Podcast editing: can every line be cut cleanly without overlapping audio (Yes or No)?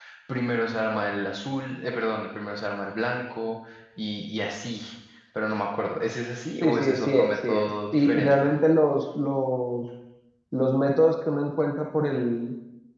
No